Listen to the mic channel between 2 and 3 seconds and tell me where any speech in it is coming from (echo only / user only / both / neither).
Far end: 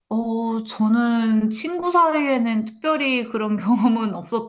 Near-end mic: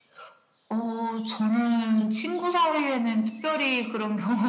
echo only